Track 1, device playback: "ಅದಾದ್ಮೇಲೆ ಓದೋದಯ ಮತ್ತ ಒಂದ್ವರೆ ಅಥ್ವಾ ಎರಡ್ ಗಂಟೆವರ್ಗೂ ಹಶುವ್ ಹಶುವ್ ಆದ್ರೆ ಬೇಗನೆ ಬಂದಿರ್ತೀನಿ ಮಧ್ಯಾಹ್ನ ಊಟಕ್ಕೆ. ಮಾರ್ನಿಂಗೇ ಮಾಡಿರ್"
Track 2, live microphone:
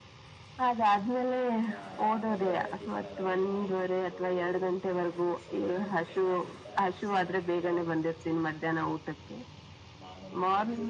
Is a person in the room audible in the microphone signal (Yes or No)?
Yes